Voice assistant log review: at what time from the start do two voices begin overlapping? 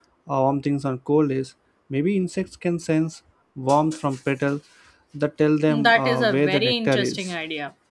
5.7 s

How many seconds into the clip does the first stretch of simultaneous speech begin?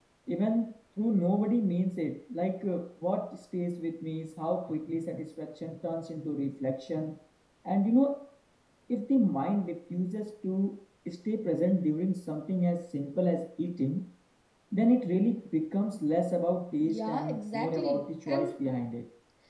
16.8 s

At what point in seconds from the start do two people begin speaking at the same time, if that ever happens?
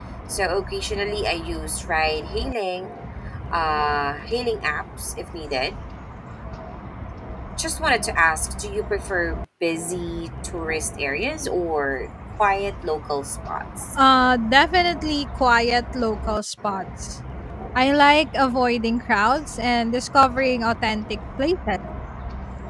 none

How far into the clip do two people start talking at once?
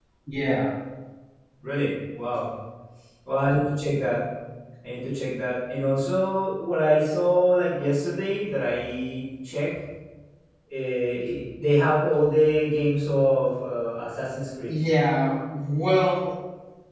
none

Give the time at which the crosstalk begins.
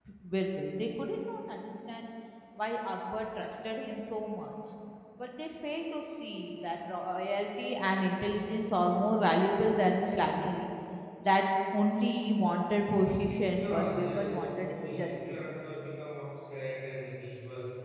13.4 s

